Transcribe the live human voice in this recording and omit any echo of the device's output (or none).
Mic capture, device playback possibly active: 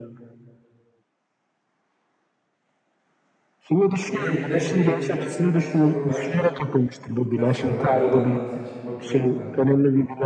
Elimde, elimde şu an birkaç soru var. Birkaç soru var. Aralarından seçip bakıyorum da.